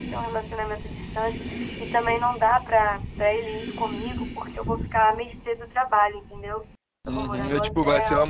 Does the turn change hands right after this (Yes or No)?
Yes